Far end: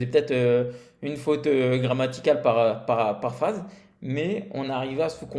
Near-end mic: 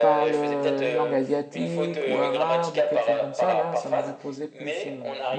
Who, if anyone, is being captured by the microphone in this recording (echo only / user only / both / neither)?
both